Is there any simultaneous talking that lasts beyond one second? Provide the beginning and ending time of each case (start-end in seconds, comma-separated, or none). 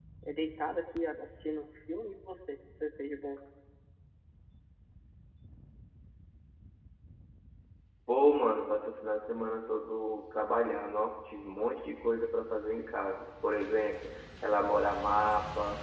none